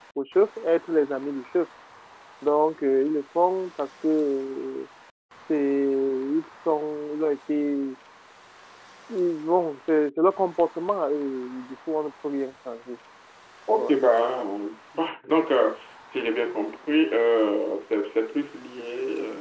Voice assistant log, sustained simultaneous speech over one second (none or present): none